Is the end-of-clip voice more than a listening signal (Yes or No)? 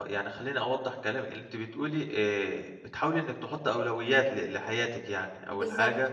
No